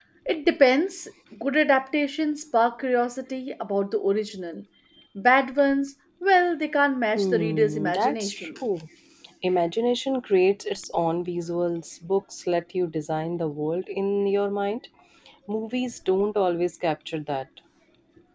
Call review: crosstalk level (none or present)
present